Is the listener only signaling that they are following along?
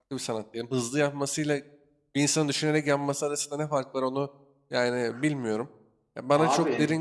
Yes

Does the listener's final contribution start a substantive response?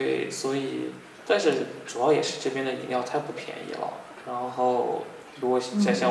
Yes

